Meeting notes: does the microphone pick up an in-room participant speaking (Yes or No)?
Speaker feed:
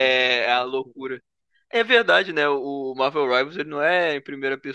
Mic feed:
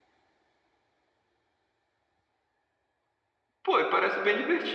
Yes